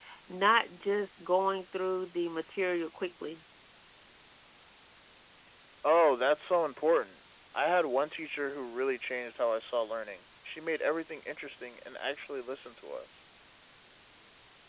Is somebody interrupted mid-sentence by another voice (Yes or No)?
No